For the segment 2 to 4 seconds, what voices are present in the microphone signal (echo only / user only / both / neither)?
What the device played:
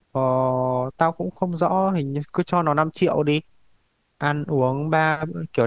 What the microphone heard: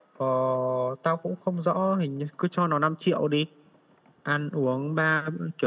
echo only